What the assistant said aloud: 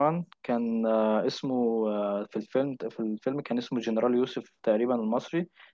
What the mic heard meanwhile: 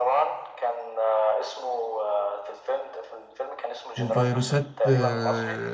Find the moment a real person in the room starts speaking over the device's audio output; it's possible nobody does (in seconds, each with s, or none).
4.0 s